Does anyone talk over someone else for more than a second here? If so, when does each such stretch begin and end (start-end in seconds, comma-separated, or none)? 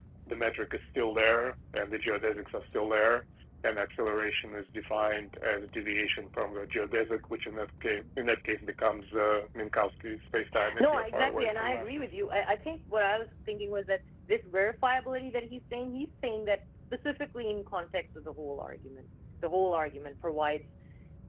10.8-12.2